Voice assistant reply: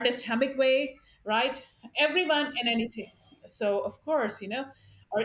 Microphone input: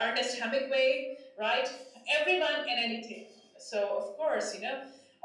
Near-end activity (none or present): none